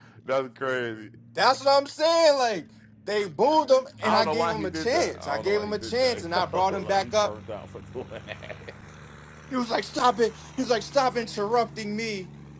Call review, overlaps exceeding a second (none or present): present